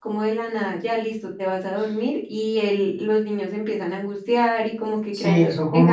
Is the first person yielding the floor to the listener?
Yes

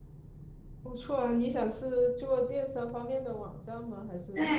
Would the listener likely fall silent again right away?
No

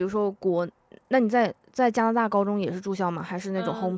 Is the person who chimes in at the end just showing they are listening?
No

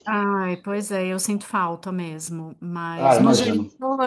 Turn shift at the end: No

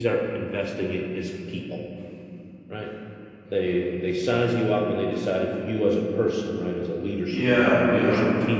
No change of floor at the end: Yes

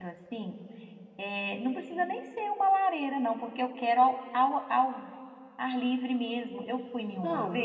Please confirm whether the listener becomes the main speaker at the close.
No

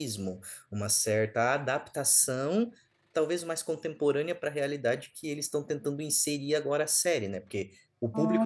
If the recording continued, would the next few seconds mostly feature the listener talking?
No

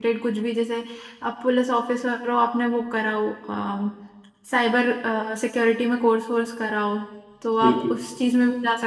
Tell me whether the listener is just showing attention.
Yes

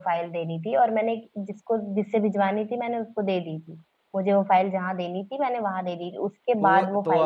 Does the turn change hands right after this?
Yes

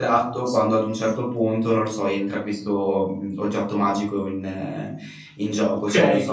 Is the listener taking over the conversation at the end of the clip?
Yes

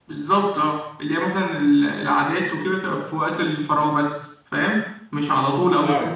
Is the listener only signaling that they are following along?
Yes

